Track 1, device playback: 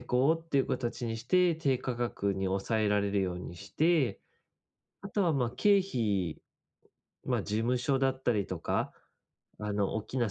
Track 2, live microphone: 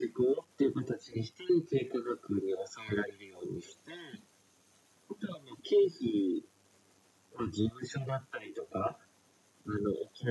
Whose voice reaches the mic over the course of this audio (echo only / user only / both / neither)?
echo only